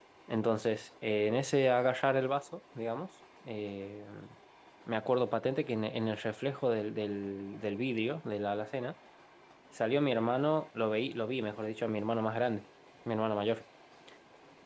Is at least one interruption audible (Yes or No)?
No